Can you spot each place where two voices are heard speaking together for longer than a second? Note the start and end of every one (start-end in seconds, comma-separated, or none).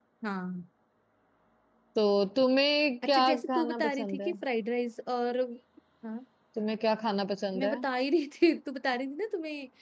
3.1-4.3